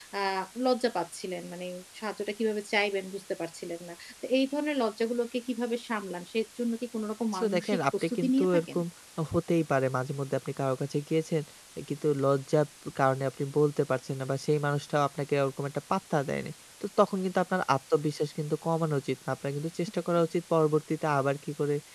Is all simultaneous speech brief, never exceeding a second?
No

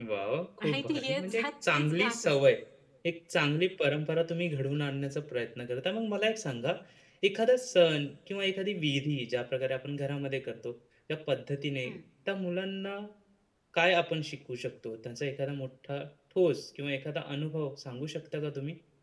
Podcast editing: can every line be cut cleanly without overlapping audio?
No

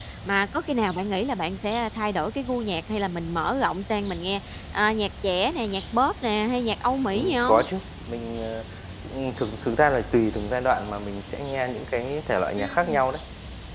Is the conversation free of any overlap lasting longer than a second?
Yes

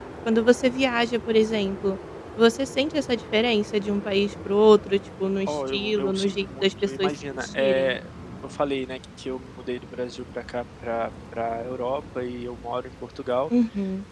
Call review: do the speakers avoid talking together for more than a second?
No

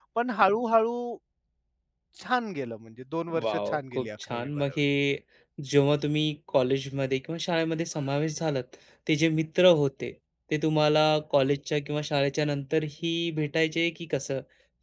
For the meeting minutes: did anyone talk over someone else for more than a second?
Yes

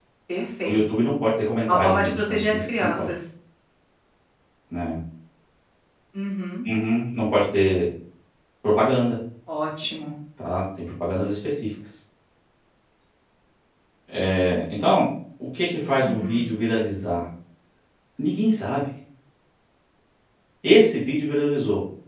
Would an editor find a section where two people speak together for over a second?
Yes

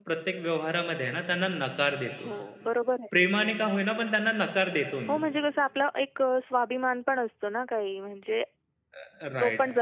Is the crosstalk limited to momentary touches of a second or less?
Yes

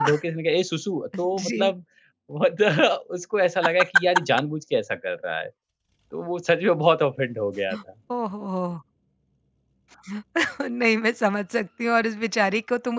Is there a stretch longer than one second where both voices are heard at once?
No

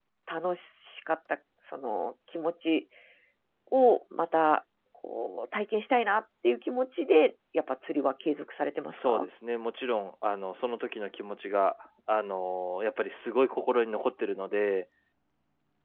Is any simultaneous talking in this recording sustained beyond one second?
No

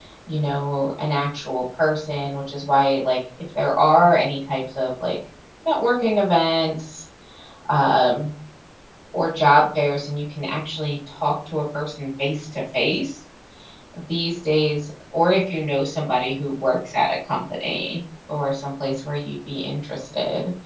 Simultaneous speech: No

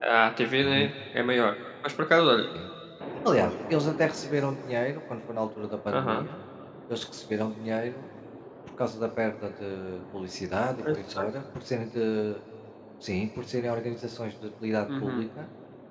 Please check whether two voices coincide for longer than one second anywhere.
No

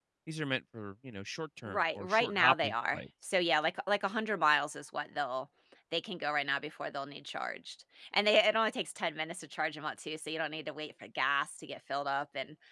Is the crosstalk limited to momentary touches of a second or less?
No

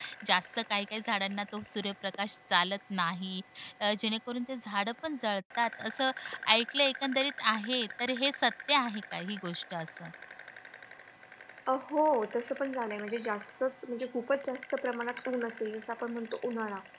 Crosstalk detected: No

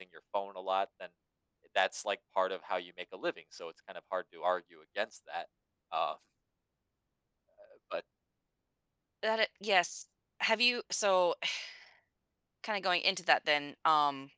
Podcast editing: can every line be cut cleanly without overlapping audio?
Yes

